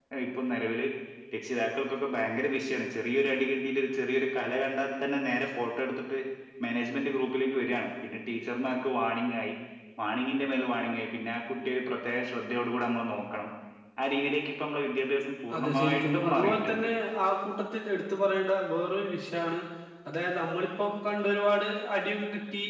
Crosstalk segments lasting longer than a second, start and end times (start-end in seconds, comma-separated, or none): 15.6-16.9